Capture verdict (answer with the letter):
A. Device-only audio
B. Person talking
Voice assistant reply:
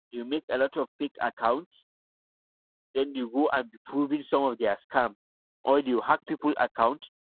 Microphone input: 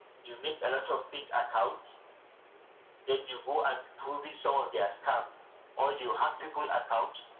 A